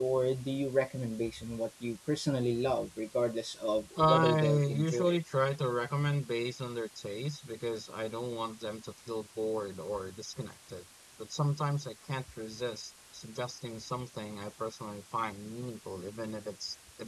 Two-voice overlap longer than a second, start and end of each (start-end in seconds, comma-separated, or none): 4.0-5.2